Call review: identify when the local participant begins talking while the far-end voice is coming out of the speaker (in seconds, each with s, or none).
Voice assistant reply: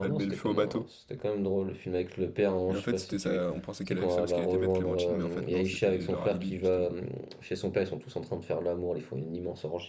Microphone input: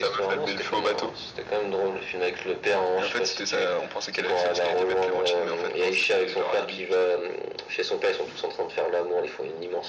none